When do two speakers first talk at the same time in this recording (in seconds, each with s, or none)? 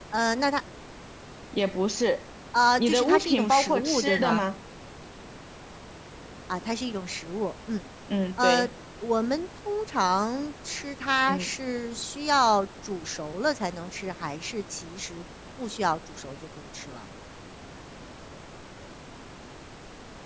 2.8 s